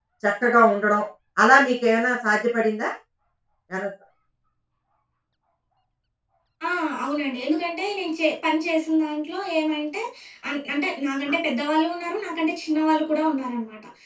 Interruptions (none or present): none